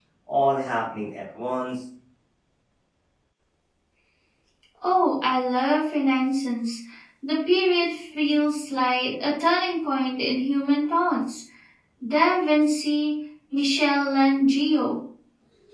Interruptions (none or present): none